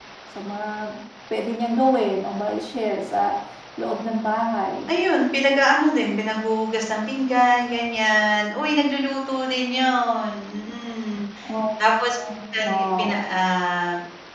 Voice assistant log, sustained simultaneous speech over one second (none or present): none